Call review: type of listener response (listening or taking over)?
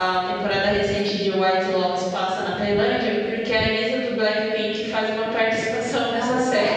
taking over